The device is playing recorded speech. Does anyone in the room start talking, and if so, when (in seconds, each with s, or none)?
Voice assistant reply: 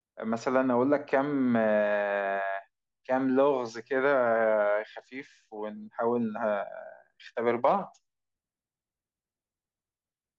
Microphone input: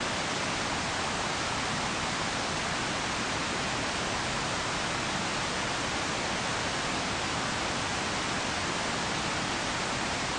none